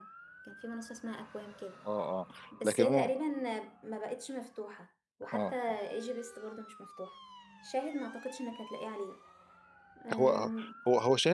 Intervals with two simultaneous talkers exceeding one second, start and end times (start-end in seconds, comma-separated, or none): none